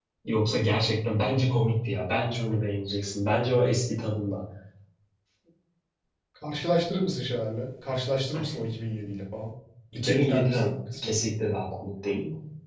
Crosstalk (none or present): present